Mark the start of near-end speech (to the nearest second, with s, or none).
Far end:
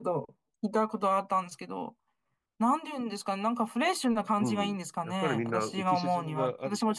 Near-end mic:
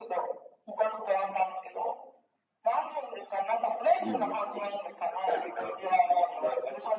4 s